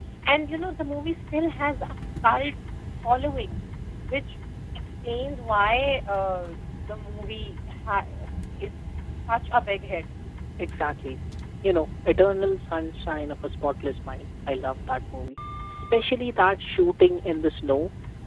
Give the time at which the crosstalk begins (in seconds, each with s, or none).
none